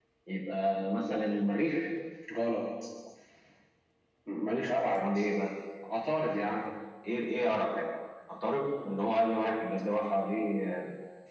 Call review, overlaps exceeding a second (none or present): none